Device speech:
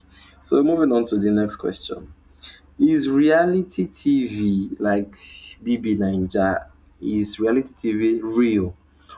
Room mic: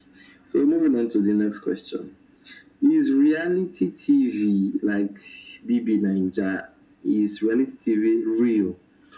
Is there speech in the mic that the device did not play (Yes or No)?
No